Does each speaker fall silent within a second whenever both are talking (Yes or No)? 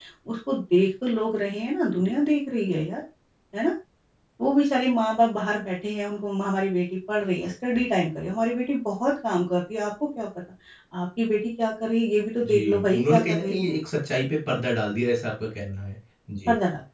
No